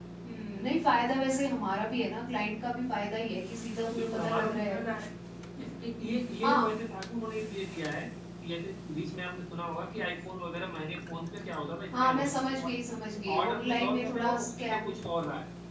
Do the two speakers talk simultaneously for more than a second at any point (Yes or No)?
Yes